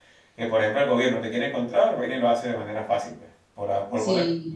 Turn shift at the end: Yes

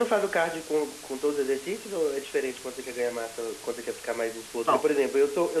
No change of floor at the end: Yes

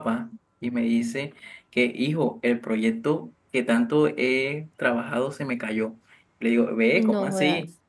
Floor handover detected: No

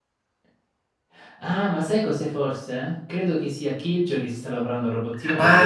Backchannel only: No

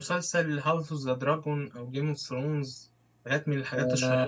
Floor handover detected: Yes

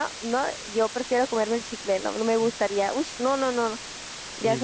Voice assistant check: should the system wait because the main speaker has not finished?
No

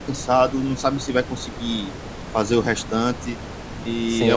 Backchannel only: No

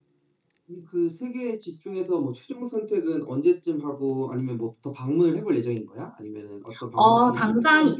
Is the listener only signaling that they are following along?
No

